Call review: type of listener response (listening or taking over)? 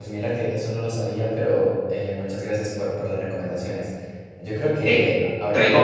taking over